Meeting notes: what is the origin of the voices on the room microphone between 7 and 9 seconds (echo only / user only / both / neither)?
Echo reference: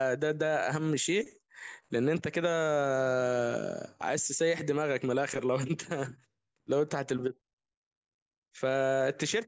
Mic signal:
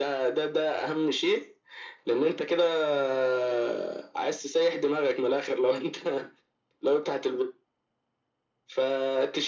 echo only